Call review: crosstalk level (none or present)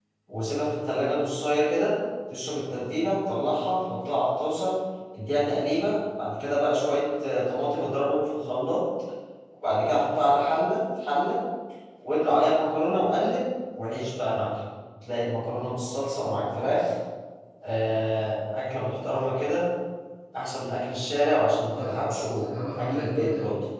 present